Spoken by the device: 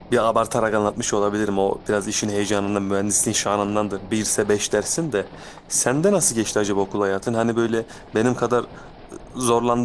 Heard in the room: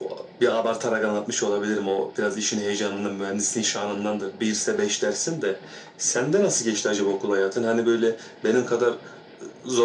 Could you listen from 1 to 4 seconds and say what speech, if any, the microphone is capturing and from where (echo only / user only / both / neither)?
echo only